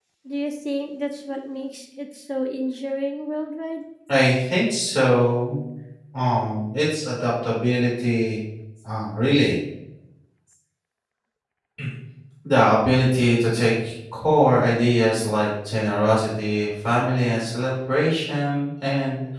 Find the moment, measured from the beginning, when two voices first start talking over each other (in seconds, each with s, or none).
none